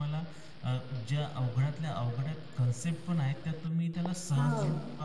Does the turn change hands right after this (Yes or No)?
No